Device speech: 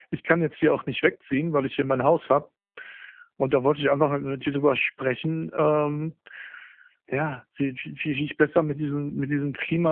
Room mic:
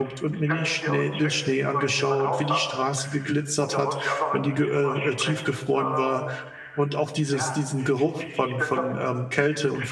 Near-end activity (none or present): present